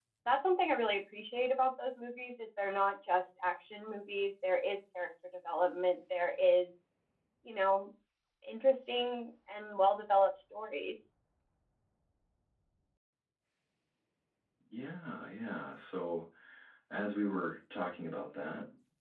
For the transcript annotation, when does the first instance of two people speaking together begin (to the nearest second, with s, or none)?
none